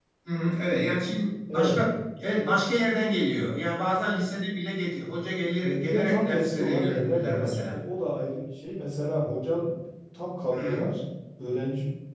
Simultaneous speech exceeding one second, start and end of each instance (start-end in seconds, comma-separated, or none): 5.6-7.8